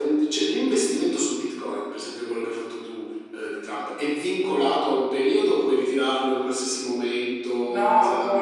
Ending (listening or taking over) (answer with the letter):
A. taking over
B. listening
A